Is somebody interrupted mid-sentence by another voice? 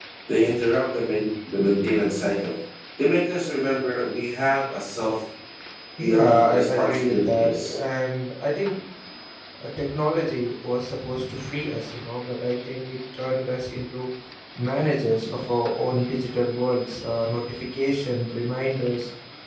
Yes, from 6.0 s

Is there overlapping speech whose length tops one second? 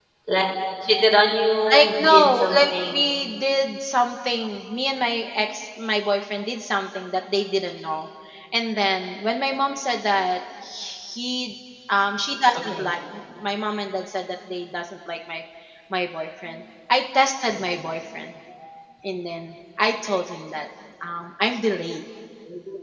Yes, from 1.7 s

